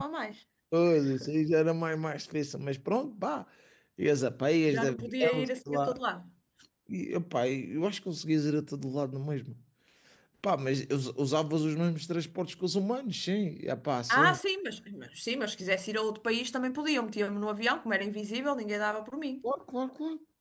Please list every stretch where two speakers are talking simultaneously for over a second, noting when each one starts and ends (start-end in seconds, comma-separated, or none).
4.7-6.0